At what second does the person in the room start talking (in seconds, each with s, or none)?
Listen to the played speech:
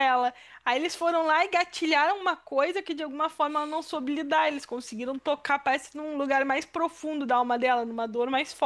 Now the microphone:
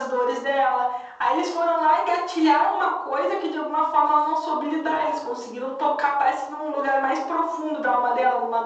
none